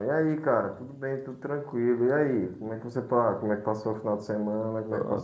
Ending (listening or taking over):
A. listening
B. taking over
B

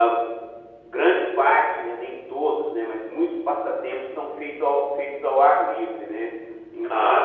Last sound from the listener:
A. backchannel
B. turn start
A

